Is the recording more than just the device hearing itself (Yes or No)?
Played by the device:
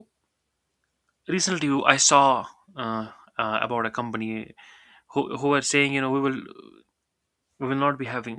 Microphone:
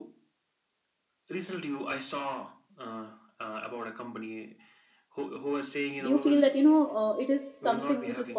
Yes